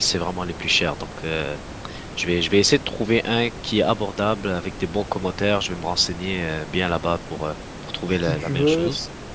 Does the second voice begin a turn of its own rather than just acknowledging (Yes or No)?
Yes